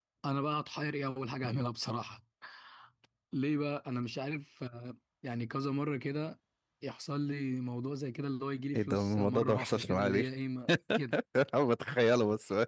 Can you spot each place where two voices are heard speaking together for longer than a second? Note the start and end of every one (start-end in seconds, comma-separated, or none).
8.8-10.2